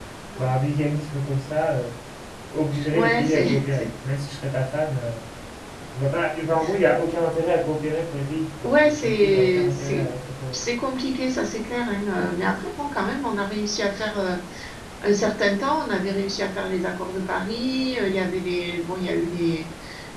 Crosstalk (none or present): present